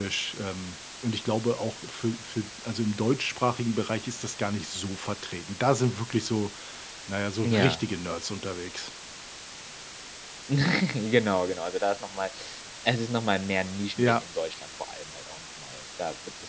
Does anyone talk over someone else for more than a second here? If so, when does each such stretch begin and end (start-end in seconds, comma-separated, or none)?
none